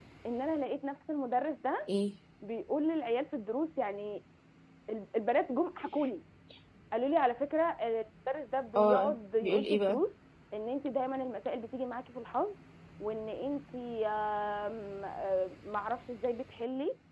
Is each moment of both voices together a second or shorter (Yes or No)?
No